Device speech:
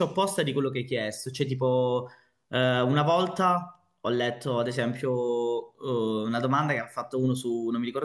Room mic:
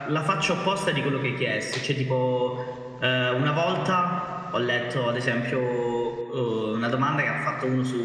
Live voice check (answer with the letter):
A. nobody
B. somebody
A